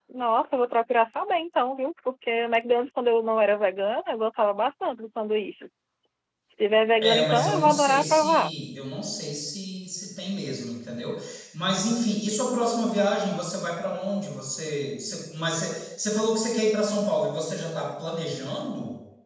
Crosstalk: present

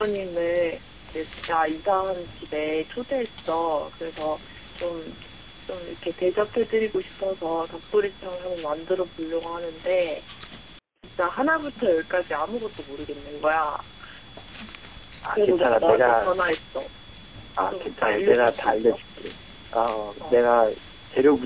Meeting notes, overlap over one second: present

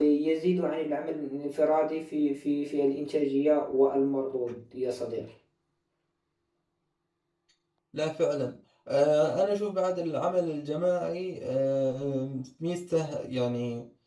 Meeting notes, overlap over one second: none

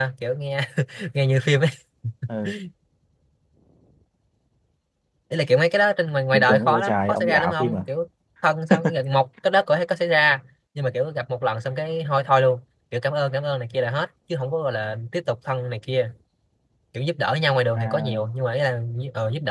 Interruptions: present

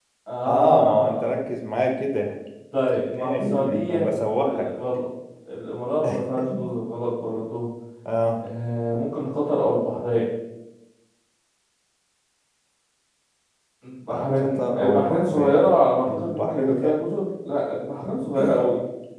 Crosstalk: present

